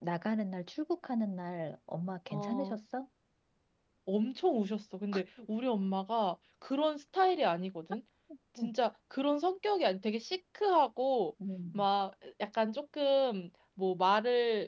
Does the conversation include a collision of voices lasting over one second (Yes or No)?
No